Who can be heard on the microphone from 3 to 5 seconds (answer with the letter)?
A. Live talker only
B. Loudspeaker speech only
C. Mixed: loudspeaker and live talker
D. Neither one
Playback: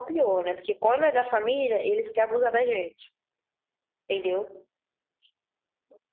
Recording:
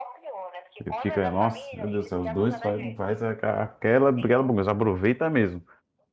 C